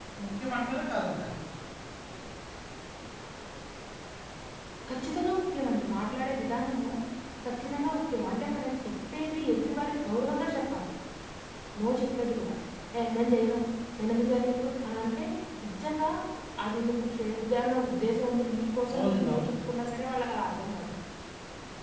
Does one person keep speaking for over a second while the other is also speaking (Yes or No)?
No